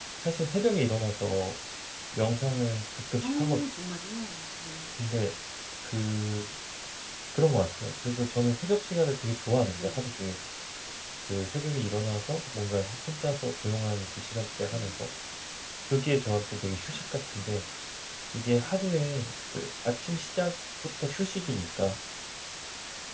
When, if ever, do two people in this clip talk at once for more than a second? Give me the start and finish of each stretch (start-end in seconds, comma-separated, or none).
none